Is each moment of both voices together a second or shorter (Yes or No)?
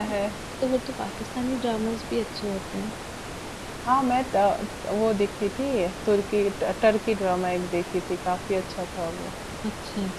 Yes